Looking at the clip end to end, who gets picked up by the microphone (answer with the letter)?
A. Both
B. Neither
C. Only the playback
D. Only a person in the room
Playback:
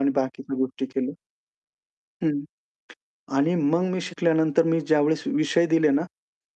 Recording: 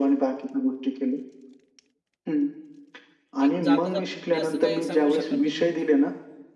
A